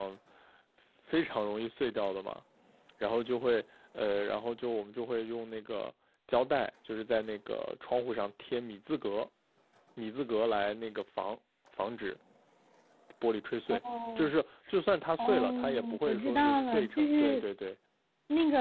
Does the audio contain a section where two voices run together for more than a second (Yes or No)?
Yes